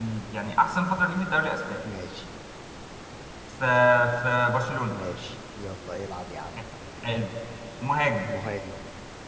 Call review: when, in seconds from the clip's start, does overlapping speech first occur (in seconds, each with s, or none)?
none